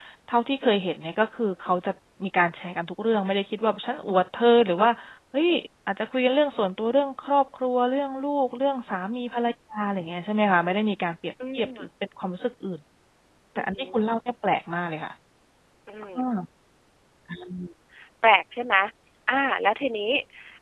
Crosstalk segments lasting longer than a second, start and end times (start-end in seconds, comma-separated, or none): none